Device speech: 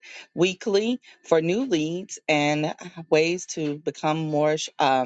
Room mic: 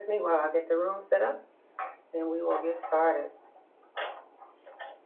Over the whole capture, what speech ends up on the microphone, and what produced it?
user only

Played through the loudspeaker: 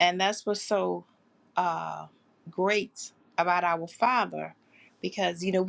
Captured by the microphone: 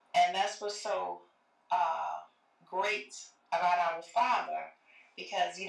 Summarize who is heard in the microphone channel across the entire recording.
echo only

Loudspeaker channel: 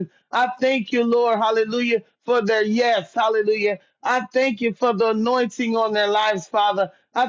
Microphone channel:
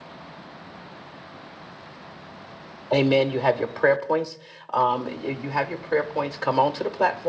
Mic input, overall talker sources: user only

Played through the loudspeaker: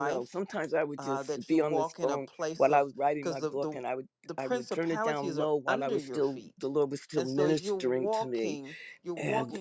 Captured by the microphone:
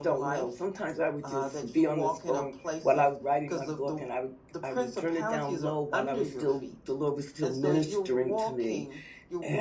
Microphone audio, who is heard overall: echo only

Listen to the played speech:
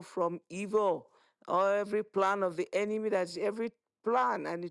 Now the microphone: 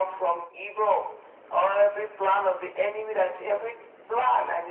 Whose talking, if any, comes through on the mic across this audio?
echo only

